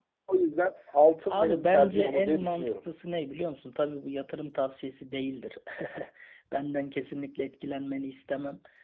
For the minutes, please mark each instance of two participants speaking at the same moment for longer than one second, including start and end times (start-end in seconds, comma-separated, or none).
1.2-2.7